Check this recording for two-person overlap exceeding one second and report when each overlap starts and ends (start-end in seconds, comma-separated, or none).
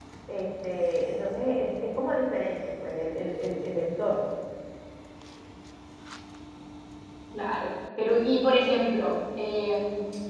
none